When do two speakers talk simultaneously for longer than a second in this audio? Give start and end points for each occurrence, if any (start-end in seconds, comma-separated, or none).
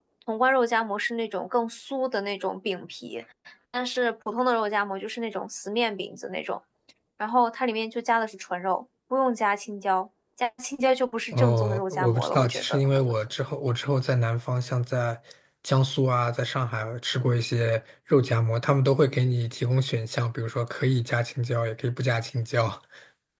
11.3-13.0